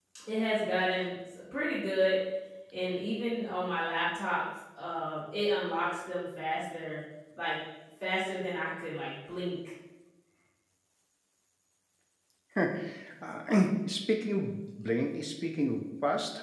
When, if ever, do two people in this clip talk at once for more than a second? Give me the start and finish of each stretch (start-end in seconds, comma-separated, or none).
none